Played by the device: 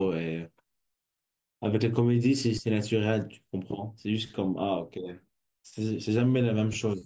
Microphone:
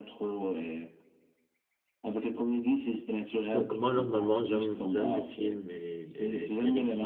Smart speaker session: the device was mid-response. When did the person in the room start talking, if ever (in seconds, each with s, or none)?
3.5 s